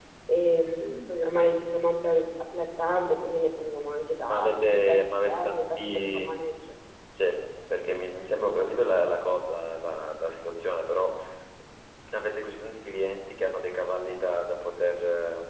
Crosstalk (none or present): present